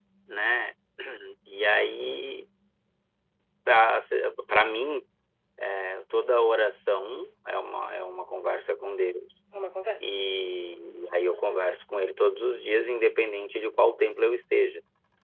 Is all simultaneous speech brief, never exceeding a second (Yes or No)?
Yes